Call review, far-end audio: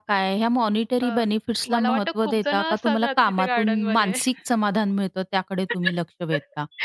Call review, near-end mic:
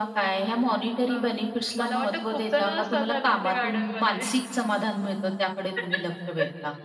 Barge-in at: none

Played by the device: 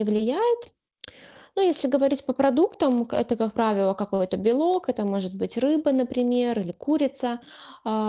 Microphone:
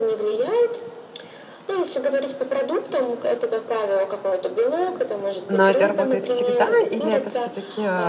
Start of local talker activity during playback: 5.5 s

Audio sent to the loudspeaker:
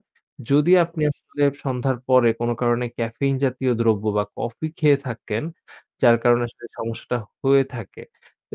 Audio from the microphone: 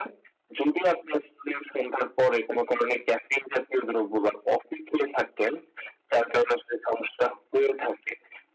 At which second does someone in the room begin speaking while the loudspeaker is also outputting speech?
none

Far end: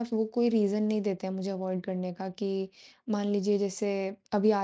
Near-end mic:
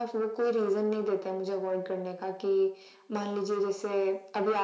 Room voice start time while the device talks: none

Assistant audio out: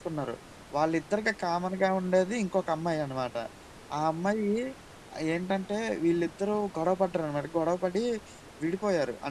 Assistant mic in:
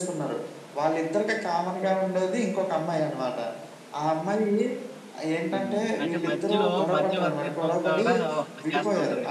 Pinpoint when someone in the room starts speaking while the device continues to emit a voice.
5.5 s

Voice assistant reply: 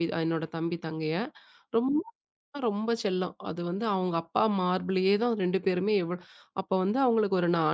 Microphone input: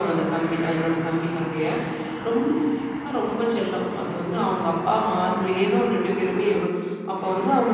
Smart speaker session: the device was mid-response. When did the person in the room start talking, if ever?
none

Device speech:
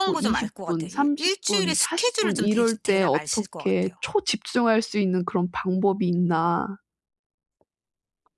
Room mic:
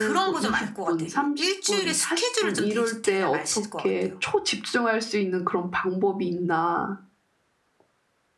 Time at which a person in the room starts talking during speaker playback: none

